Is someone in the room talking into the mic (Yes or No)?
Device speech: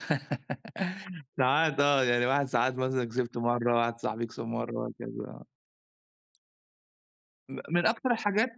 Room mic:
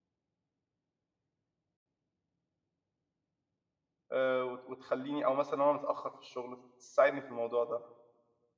Yes